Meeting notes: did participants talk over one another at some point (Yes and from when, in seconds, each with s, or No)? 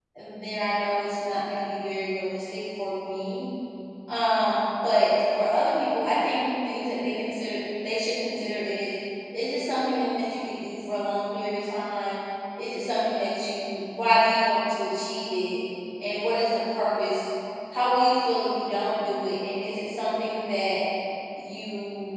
No